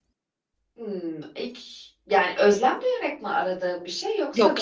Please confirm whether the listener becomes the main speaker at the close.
Yes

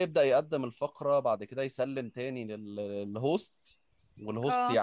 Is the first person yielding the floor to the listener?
No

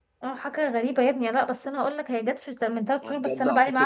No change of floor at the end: No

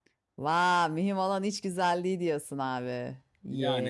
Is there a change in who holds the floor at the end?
Yes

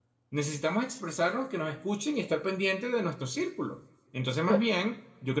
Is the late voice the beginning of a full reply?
No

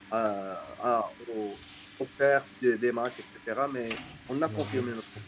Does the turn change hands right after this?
No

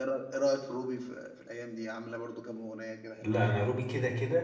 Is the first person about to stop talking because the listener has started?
Yes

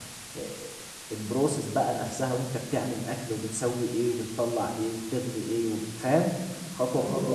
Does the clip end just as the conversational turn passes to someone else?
Yes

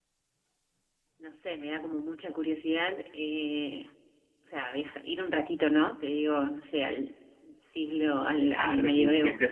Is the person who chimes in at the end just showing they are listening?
No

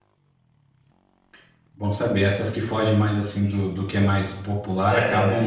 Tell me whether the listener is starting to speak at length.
No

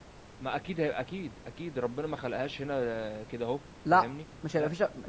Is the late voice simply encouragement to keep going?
No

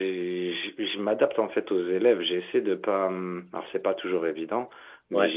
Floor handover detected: No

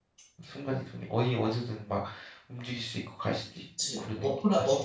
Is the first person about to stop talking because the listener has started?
Yes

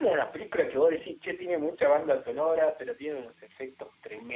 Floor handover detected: Yes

